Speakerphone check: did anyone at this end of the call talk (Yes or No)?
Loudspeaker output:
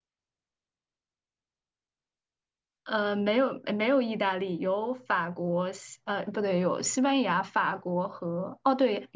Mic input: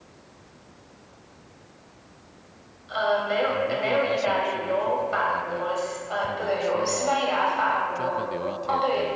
Yes